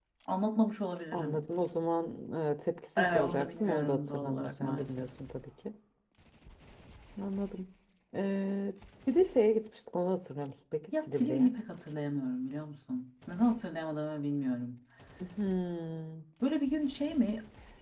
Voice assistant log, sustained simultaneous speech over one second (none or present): present